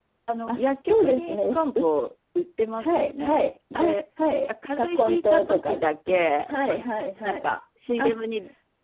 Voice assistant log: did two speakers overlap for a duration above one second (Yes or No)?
Yes